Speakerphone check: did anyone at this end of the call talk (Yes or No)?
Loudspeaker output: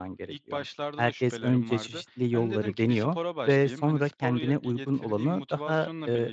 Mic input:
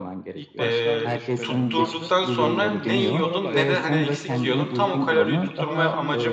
Yes